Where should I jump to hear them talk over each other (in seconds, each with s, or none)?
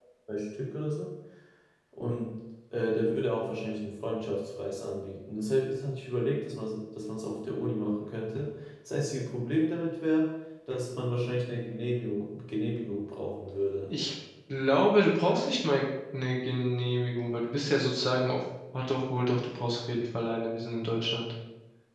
none